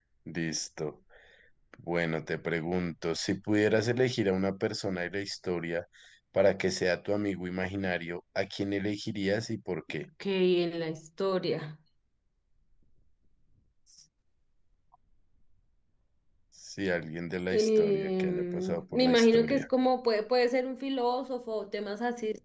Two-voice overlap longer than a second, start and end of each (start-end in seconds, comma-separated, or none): 17.5-19.6